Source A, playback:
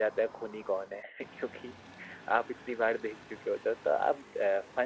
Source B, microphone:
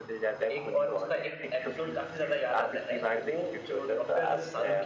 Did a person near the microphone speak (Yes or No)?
Yes